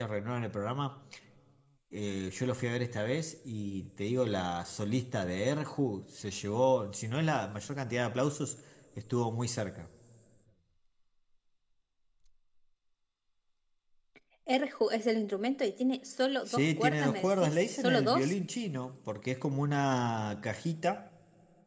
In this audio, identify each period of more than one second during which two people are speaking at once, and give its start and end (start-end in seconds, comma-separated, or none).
16.5-18.3